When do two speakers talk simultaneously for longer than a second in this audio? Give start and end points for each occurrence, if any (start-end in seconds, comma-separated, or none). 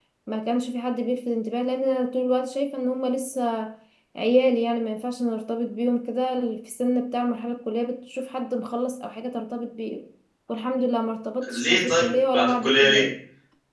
11.5-13.0